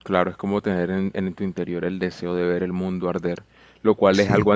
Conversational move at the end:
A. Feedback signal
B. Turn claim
A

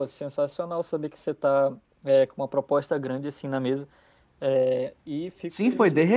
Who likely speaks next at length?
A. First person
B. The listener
B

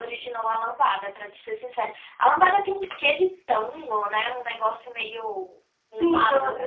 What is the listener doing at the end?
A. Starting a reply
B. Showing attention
A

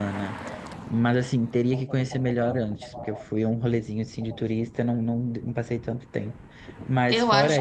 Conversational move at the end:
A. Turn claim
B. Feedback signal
A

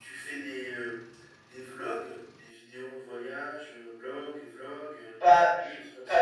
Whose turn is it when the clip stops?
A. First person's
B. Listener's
B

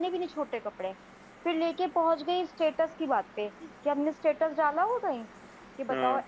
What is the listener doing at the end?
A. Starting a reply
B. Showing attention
B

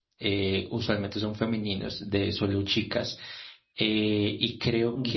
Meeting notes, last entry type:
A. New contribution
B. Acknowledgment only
B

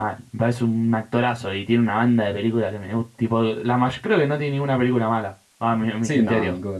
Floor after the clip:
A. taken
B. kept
A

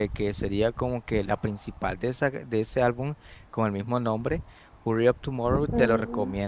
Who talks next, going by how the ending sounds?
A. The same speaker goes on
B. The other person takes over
A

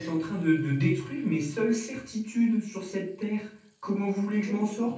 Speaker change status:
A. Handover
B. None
A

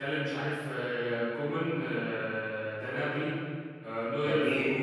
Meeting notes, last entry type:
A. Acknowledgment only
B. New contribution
A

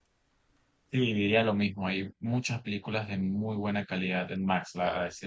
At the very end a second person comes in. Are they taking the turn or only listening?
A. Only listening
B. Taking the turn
A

